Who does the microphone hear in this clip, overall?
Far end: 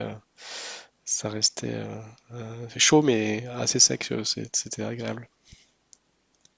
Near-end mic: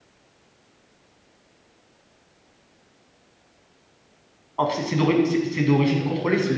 user only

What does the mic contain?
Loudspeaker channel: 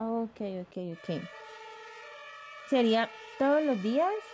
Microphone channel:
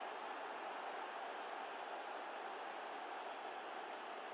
neither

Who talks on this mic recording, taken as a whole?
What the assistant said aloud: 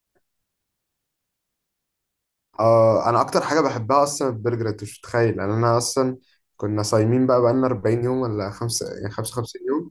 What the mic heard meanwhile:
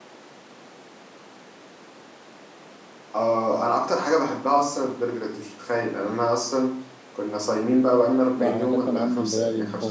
both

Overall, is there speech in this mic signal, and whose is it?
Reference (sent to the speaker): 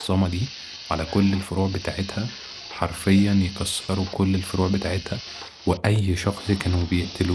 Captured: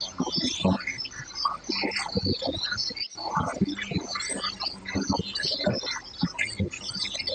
echo only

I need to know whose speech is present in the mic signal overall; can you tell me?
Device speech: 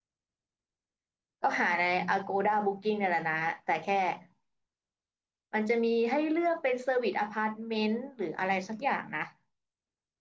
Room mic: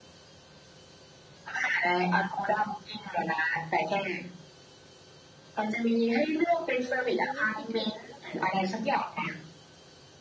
both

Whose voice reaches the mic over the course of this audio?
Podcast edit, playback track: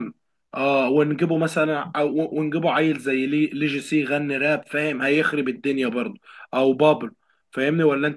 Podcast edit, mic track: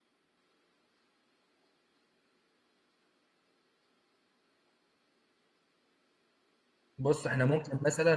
user only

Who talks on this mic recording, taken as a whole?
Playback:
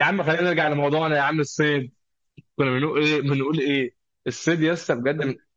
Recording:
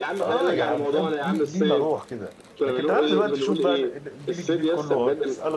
both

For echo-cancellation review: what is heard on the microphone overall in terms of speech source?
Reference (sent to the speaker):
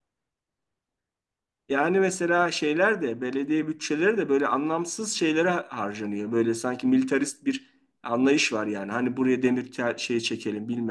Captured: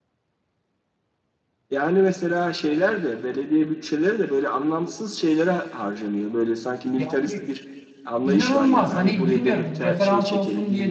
both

